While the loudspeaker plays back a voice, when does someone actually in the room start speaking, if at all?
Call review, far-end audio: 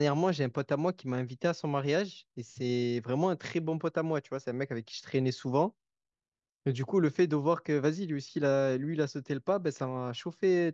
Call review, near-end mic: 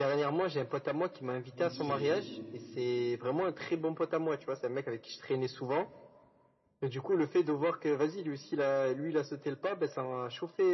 1.5 s

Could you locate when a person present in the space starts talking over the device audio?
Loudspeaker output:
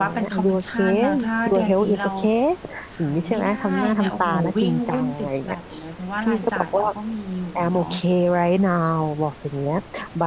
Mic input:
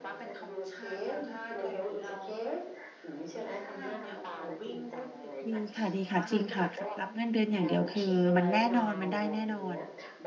5.4 s

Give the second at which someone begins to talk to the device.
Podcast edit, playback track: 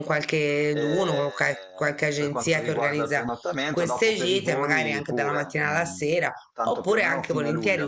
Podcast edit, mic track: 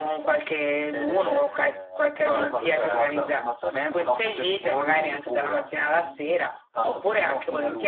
2.1 s

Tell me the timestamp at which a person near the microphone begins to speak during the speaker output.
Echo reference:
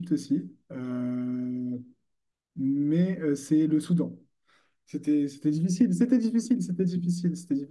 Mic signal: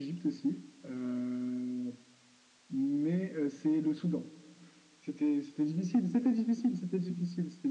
none

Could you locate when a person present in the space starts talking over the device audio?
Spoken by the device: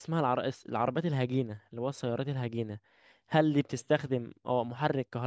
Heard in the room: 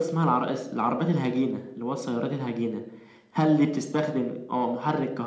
none

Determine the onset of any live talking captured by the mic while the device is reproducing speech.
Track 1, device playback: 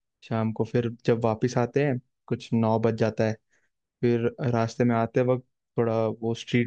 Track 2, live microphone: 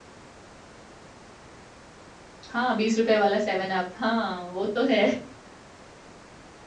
2.5 s

